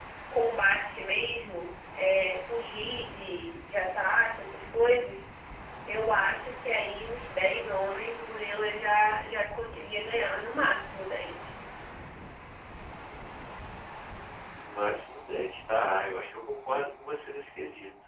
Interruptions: none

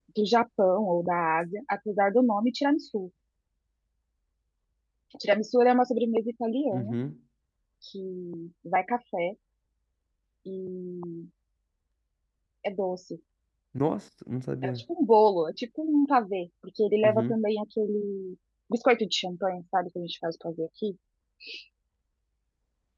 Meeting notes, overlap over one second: none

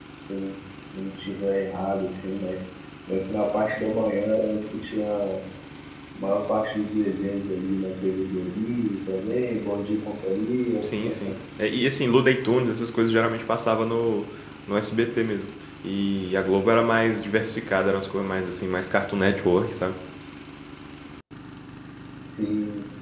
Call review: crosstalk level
none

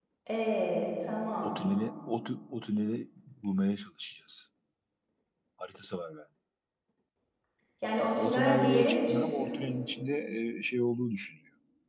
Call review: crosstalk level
present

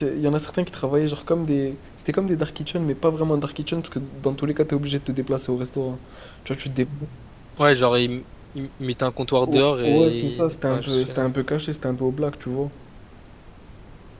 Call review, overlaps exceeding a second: present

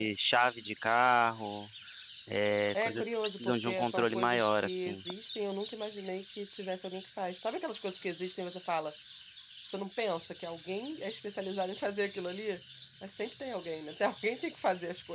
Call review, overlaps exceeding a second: present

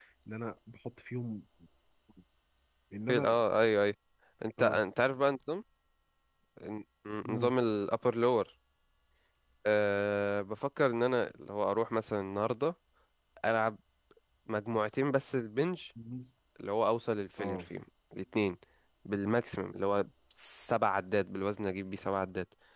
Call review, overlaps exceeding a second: none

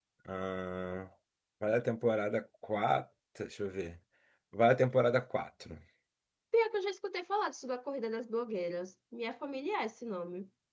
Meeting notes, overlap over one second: none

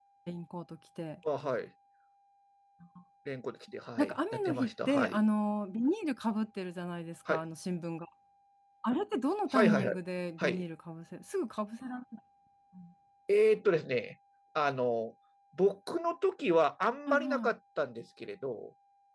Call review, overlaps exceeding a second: present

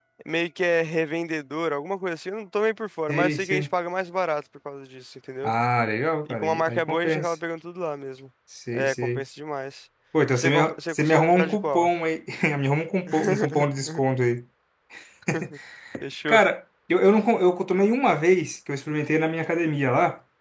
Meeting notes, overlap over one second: present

